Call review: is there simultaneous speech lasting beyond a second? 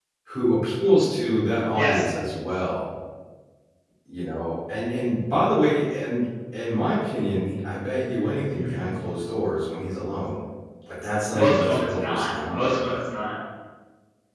Yes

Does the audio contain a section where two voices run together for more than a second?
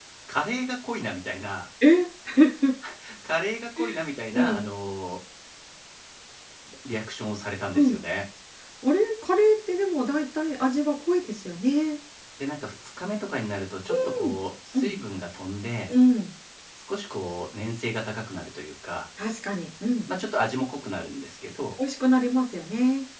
No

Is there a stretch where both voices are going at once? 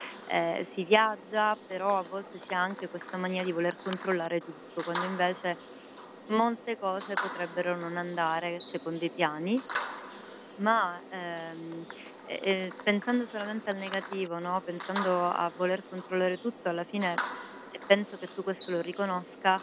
No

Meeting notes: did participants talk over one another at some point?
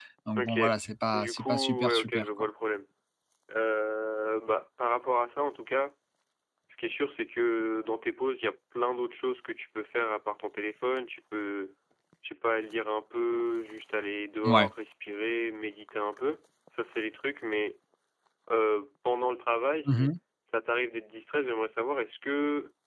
Yes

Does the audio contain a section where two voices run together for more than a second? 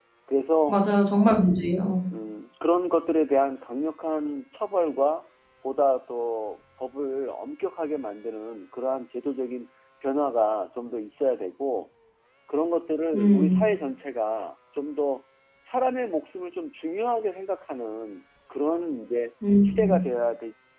No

